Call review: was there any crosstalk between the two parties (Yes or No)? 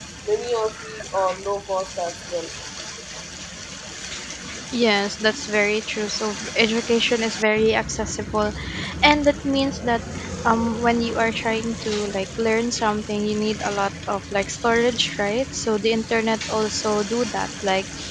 No